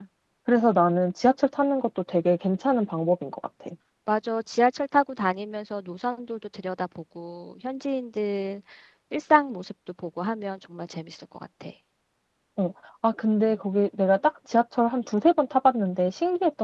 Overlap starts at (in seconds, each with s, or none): none